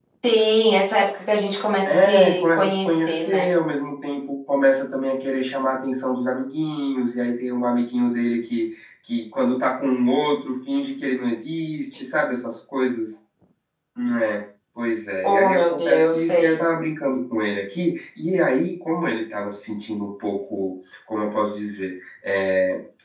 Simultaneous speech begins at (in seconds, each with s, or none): 1.9 s